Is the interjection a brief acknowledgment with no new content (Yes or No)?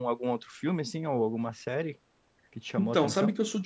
No